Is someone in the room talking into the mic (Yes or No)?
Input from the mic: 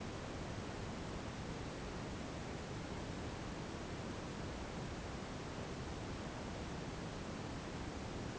No